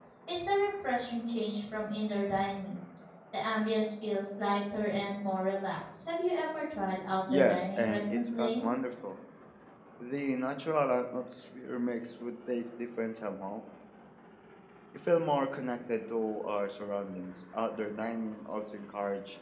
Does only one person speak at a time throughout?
No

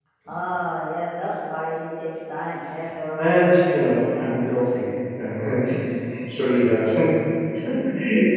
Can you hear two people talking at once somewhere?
Yes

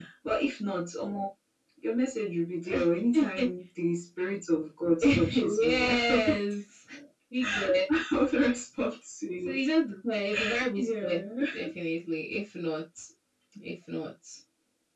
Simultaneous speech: Yes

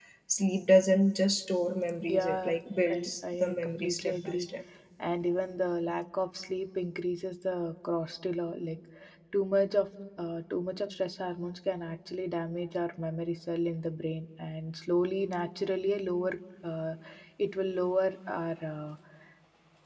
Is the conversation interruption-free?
No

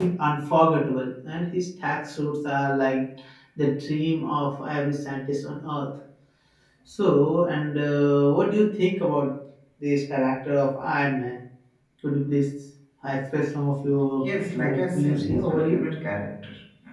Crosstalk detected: Yes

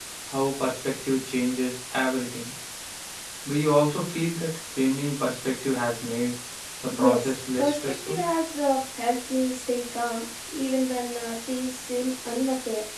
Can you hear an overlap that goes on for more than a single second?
Yes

